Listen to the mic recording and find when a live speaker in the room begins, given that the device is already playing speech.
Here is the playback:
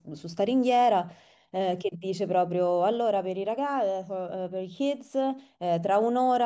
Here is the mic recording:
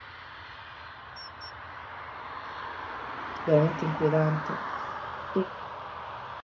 3.4 s

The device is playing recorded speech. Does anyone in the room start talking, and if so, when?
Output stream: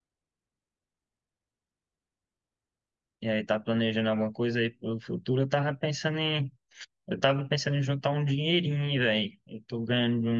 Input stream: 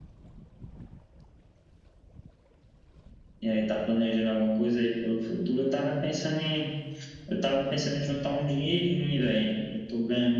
none

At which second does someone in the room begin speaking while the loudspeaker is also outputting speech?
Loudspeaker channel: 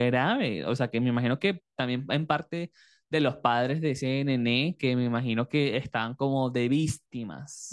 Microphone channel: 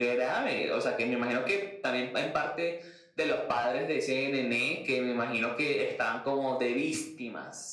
none

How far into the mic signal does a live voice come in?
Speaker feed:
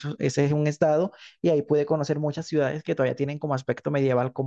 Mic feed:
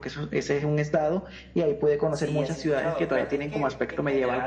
2.1 s

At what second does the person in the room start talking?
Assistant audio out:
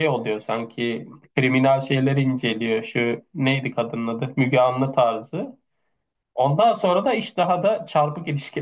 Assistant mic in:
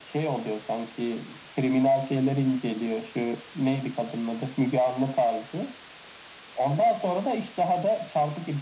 none

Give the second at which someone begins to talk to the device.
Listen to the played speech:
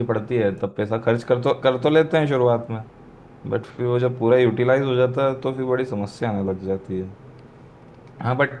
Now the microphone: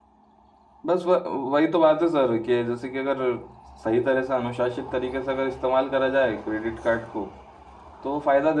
0.8 s

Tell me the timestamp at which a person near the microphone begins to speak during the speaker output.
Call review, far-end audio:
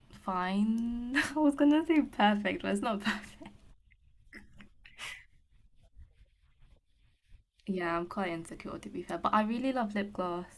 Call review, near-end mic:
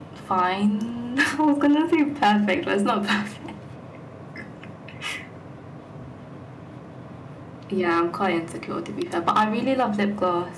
none

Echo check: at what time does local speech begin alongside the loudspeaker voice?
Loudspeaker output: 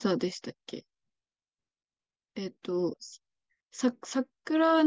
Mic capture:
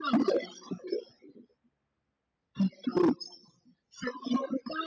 none

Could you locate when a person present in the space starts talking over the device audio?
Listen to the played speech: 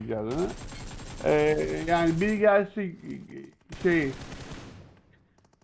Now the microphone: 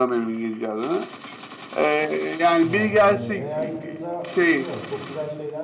2.6 s

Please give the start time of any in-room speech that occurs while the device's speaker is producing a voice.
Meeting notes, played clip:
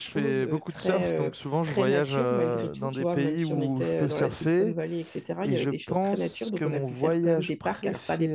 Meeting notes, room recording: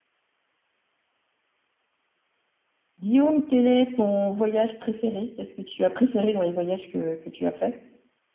3.0 s

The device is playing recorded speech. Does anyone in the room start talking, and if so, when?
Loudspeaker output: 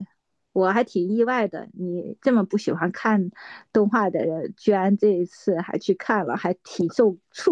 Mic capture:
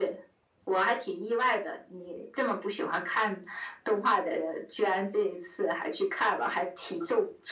none

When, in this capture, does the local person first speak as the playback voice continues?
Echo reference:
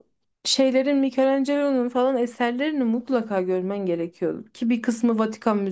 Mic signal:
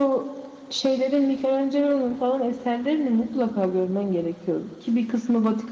none

